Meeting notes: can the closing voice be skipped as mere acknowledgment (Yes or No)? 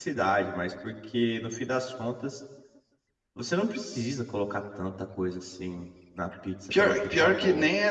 No